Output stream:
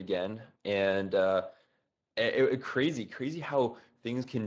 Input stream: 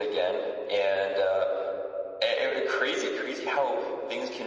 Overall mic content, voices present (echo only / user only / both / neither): echo only